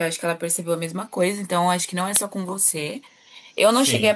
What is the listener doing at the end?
listening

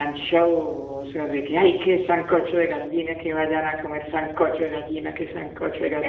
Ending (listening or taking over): taking over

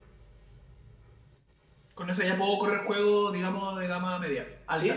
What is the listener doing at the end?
taking over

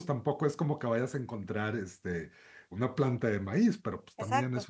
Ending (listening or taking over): listening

